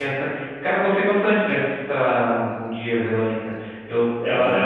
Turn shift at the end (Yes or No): No